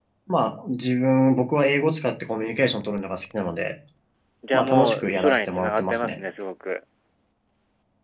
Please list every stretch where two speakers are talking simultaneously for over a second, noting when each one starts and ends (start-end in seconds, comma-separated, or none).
4.5-6.2